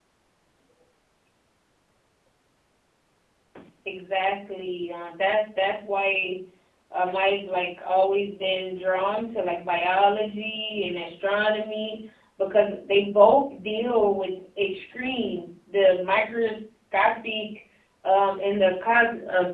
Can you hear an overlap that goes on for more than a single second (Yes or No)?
No